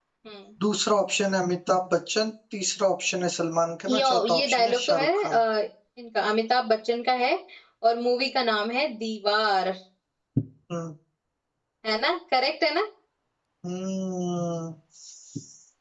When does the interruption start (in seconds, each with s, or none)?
3.9 s